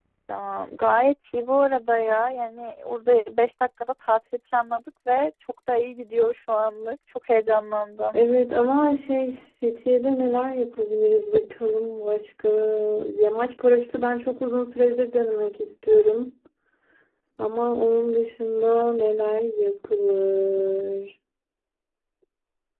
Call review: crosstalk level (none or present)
none